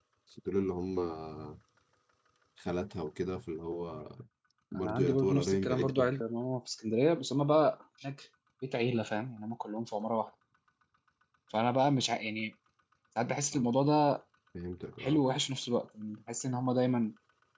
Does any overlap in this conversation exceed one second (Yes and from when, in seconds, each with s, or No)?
Yes, from 4.8 s